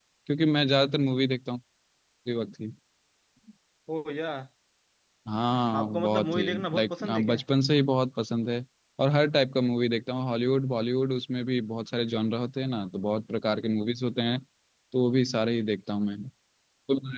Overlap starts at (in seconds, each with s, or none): 5.8 s